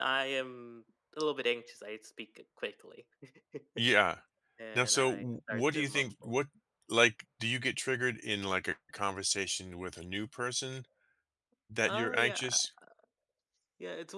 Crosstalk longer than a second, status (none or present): present